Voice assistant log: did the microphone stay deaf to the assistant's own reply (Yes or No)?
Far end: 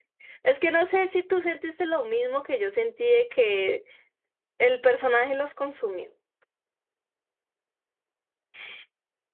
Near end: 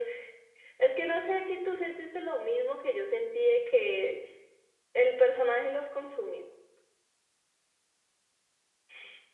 No